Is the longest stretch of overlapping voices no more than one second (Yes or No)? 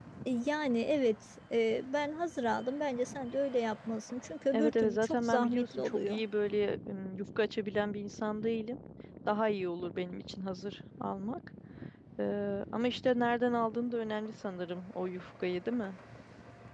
No